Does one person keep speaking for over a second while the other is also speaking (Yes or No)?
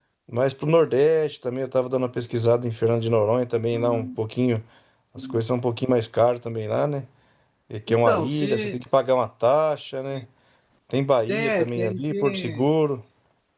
Yes